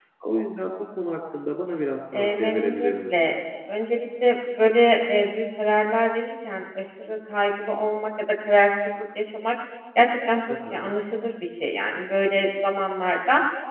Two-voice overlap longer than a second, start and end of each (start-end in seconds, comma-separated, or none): 2.1-3.4